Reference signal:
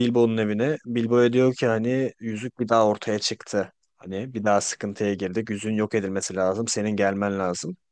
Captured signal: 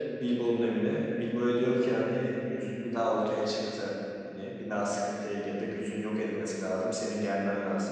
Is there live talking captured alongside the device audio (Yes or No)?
No